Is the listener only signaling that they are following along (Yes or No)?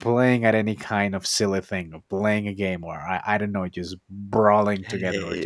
No